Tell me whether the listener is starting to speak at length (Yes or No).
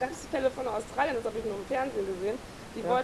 No